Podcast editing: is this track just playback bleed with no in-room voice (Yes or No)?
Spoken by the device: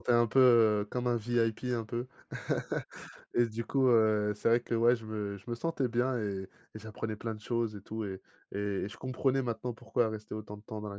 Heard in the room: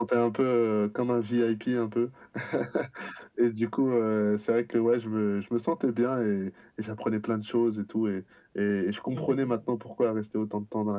No